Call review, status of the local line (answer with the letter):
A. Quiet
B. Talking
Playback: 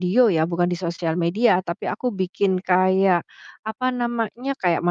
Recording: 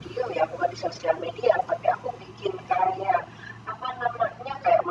A